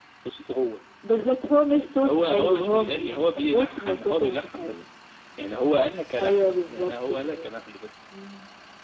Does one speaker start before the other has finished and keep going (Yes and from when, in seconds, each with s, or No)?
Yes, from 2.0 s